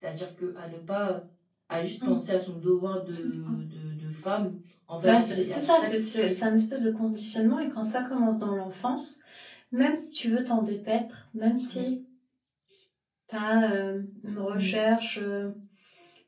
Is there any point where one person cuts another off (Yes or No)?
Yes